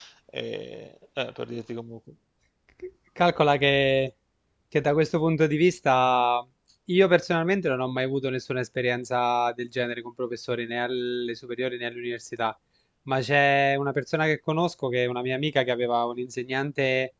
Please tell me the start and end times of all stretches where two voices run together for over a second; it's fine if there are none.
none

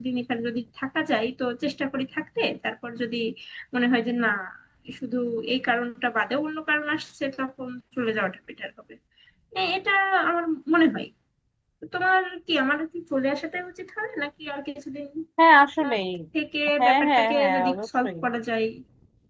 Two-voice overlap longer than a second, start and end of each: 16.8-18.1

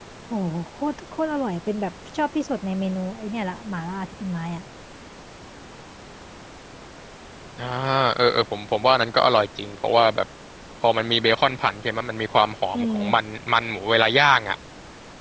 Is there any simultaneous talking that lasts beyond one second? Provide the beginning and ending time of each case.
none

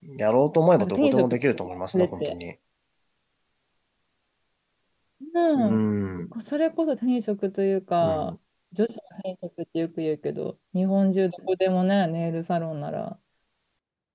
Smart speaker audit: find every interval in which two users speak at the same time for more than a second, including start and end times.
0.8-2.4

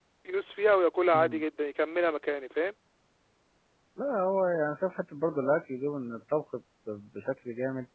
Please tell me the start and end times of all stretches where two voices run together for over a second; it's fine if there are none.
none

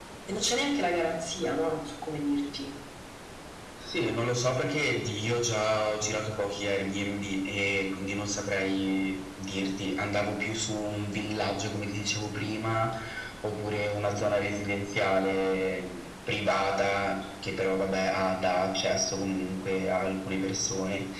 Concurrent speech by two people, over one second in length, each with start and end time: none

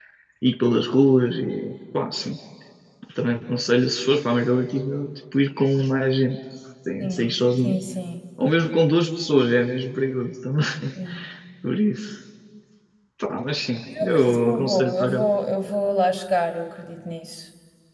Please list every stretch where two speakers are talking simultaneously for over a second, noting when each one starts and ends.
14.0-15.3

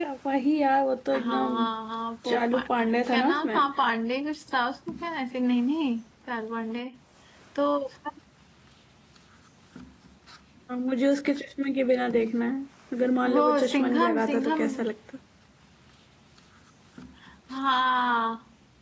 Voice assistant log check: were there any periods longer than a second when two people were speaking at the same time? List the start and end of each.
2.3-3.7, 13.2-14.7

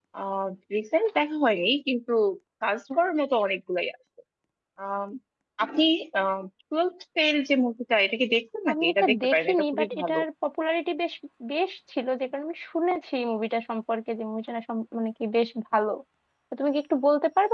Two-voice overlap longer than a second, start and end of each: 8.7-10.2

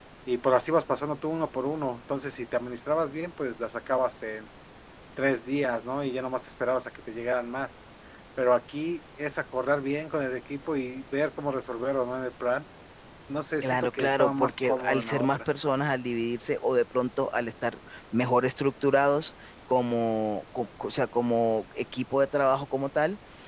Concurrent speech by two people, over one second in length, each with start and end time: 13.6-15.4

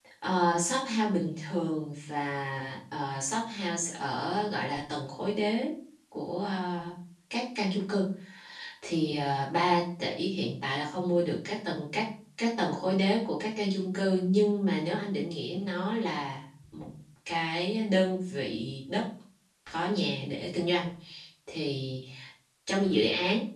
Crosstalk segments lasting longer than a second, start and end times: none

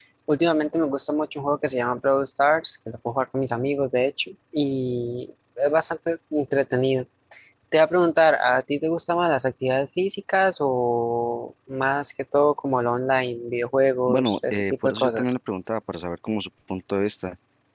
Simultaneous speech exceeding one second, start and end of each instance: 14.1-15.3

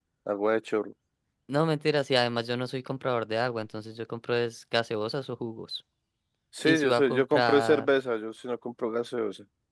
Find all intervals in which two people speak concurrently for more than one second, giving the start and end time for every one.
6.6-7.9

